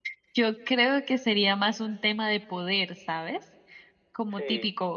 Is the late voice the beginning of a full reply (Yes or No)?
No